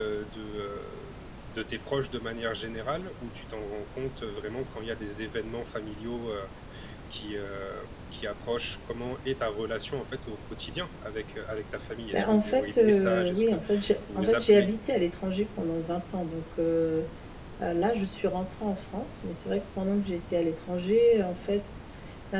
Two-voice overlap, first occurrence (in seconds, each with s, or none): 12.1 s